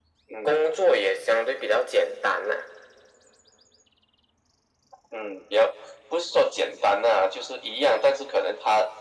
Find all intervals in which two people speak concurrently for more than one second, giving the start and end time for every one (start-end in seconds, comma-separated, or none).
none